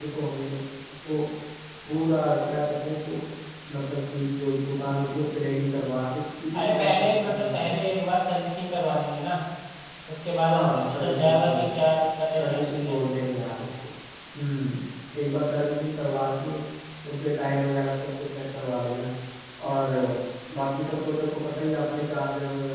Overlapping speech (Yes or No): Yes